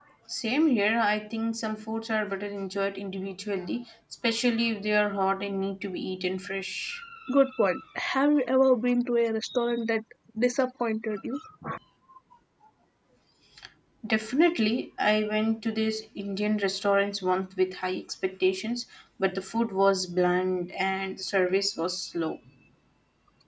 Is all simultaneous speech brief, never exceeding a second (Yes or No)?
Yes